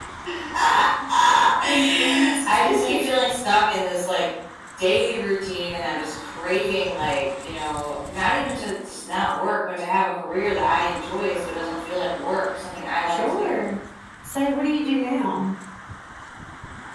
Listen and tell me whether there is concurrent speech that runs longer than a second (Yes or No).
Yes